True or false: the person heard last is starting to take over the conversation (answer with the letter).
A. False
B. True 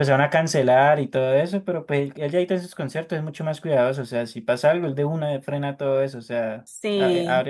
A